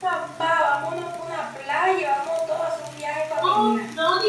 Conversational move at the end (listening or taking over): taking over